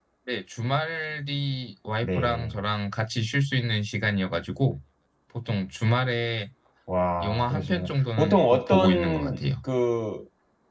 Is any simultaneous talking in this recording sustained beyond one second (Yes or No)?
Yes